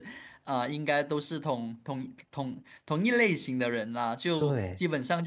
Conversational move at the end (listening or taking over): listening